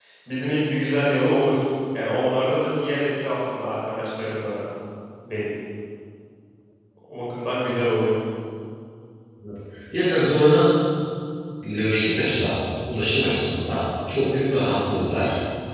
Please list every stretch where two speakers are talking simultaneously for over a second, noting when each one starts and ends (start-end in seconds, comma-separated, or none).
none